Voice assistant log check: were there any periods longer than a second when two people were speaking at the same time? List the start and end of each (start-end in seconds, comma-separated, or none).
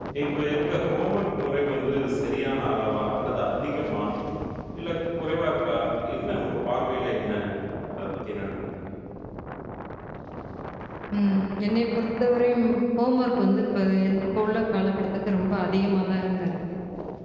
none